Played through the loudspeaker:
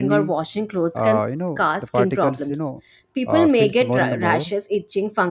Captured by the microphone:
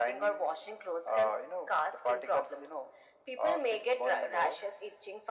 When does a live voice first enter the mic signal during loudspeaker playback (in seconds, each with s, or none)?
none